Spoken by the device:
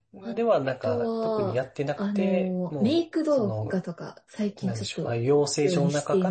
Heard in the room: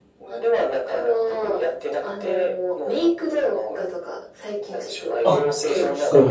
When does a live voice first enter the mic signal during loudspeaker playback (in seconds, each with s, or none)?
5.2 s